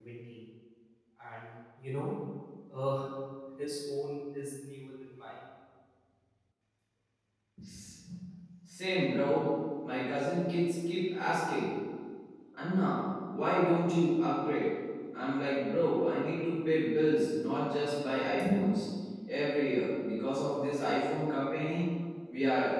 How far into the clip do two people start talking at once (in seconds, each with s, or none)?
none